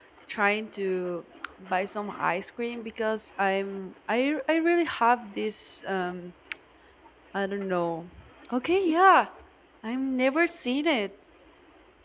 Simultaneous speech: No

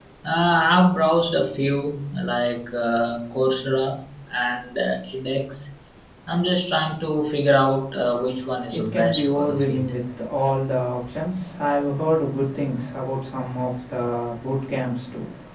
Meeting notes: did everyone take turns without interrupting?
No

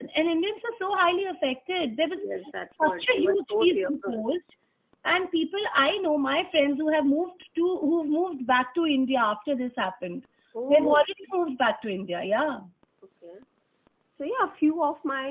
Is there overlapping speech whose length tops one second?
Yes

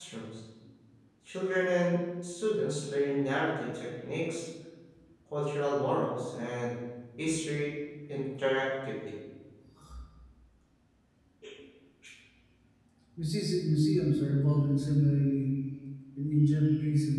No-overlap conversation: Yes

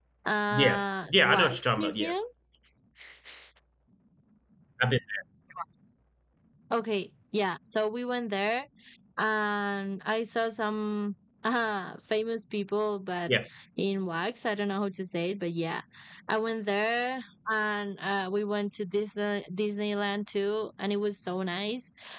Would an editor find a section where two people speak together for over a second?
Yes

